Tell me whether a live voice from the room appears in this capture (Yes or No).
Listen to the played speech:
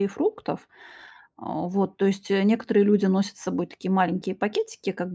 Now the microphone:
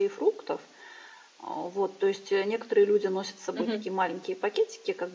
Yes